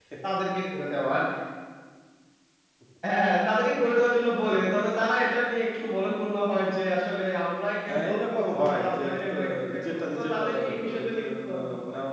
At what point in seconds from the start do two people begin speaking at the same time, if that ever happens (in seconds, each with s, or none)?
7.9 s